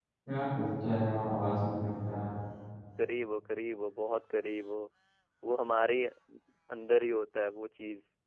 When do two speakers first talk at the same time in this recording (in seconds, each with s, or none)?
none